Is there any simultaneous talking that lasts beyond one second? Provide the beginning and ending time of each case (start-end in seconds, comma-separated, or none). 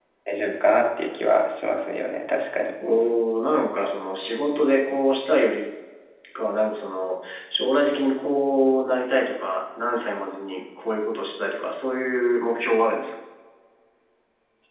none